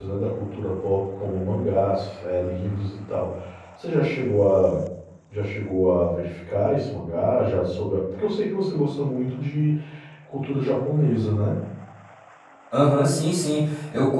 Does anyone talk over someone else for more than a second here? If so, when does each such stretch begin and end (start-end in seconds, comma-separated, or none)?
none